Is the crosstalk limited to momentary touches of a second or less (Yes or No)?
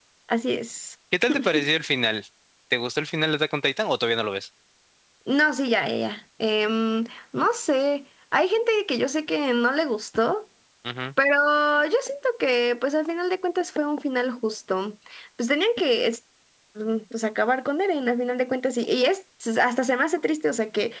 Yes